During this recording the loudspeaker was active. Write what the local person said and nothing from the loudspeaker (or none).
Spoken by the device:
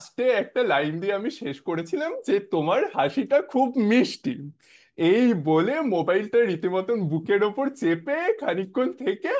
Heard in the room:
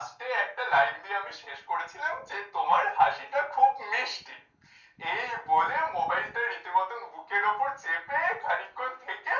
none